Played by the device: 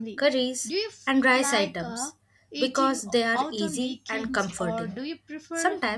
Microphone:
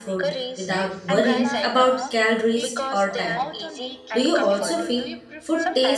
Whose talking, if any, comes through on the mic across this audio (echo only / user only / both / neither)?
both